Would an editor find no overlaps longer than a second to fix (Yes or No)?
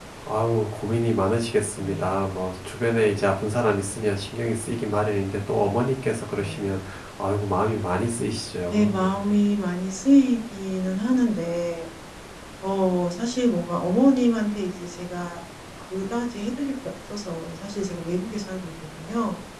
Yes